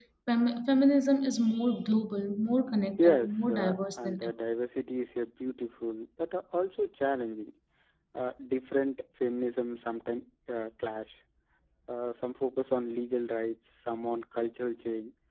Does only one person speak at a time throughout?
No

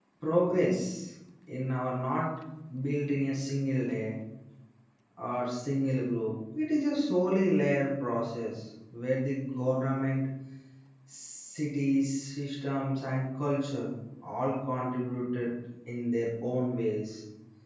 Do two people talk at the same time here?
No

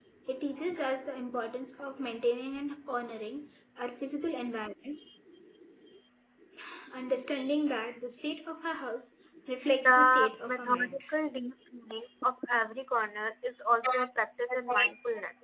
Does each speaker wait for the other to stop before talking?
No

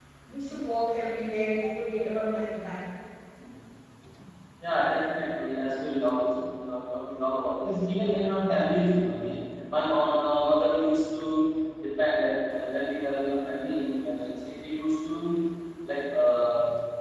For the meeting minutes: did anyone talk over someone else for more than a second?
No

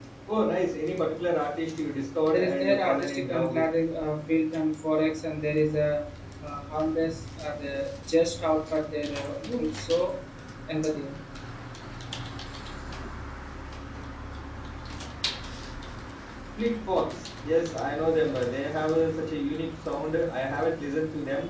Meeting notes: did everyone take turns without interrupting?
No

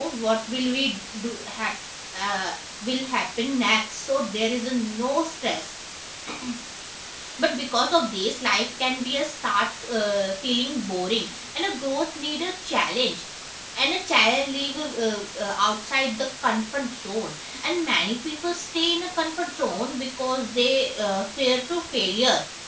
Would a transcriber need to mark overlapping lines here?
No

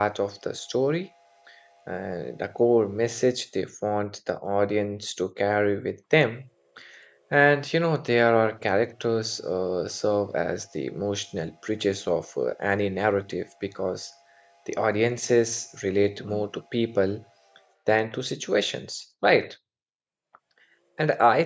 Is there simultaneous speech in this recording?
No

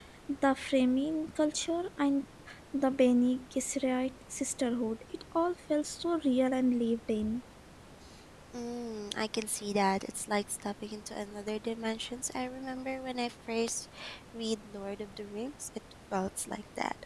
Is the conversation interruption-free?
Yes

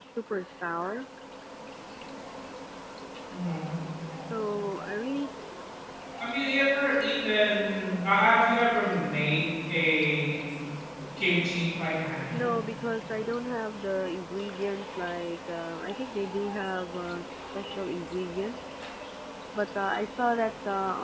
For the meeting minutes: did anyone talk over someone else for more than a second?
No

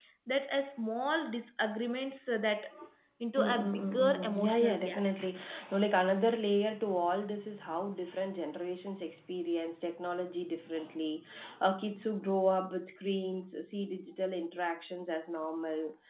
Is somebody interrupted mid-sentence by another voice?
Yes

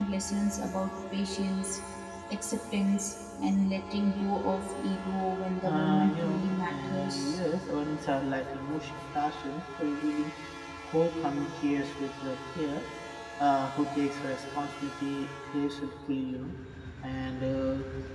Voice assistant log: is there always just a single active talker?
No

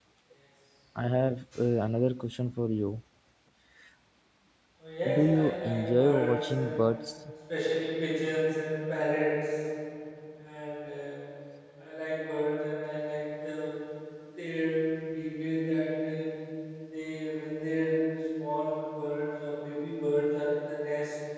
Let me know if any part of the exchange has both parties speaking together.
Yes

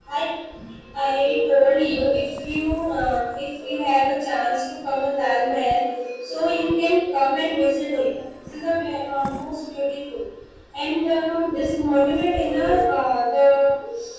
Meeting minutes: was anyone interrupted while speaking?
No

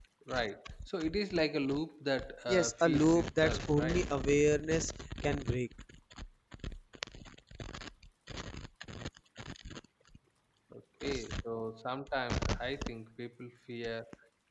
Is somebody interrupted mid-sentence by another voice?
Yes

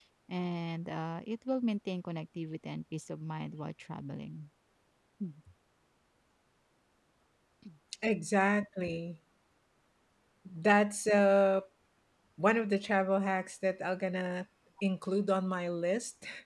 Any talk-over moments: No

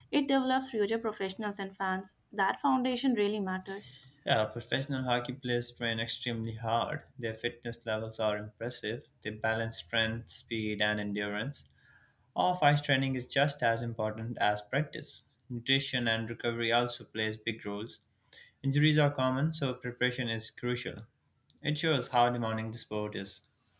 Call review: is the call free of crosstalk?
Yes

